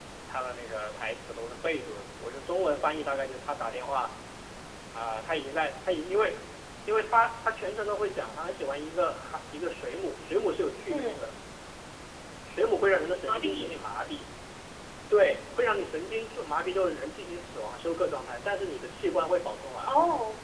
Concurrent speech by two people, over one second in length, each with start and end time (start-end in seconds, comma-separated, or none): none